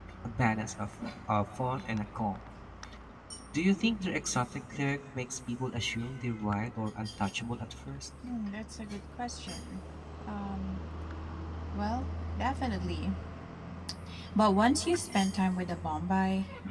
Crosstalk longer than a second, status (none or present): none